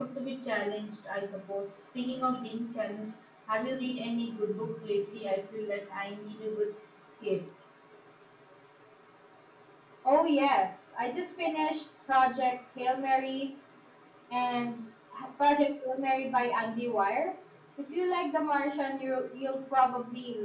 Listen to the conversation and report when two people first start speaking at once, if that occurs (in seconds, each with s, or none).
none